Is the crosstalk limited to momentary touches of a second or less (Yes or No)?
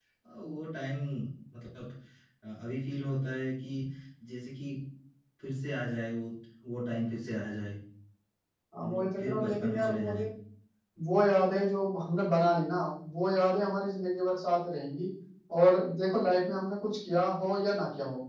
No